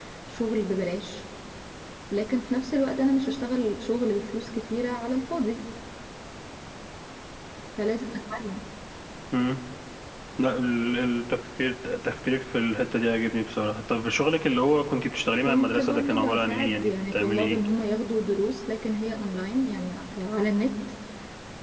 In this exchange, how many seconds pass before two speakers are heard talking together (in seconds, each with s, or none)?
15.4 s